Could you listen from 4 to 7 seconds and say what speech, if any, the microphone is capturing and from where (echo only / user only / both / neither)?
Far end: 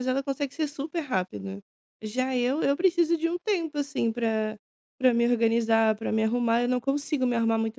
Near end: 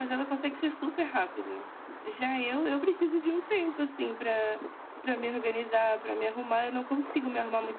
echo only